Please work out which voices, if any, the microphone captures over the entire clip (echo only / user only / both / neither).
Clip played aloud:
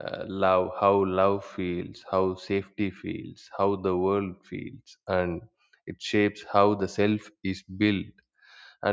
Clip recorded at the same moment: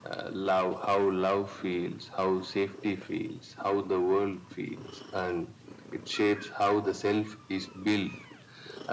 echo only